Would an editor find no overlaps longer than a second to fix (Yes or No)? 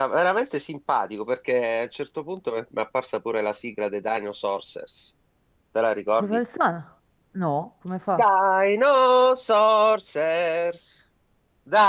Yes